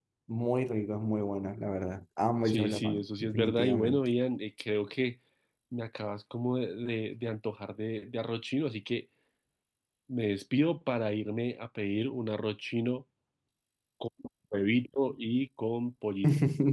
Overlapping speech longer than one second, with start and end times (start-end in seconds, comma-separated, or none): 2.5-4.0